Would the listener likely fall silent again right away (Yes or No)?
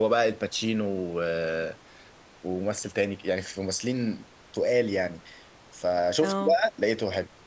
Yes